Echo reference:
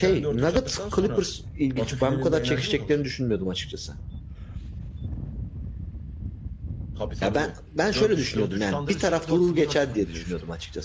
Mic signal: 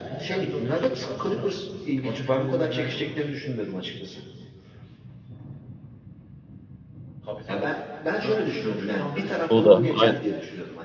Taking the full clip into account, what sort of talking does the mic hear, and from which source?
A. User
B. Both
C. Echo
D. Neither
B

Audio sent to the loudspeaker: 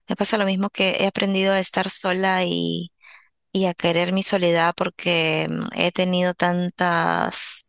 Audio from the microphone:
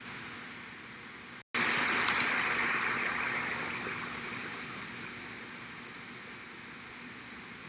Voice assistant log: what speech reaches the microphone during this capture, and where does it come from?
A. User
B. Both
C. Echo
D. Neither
D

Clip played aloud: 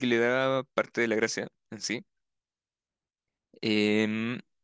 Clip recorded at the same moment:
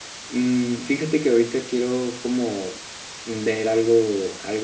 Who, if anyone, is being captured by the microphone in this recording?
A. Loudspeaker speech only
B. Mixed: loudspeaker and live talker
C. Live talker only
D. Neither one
C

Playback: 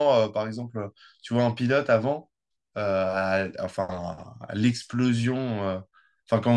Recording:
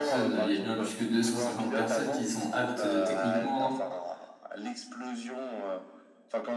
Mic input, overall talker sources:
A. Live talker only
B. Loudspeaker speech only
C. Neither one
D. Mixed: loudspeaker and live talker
D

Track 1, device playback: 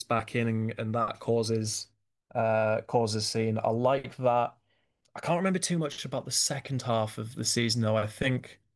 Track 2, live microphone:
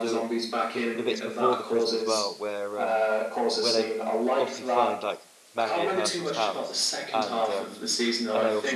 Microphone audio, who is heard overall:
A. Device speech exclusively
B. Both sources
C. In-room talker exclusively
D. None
B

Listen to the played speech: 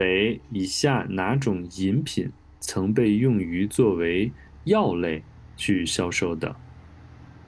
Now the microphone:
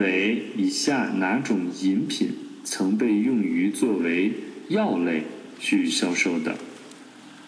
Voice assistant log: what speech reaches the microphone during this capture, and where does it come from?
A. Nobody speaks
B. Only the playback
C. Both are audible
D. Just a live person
B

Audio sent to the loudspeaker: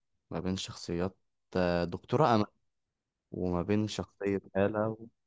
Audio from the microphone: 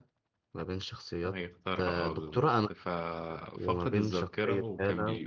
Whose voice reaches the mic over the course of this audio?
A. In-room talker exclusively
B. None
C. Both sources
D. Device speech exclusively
C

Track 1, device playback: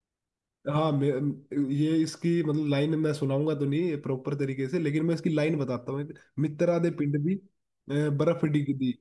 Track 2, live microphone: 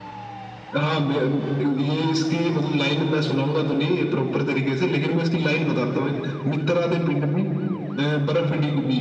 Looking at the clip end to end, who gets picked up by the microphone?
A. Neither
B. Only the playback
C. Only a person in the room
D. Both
B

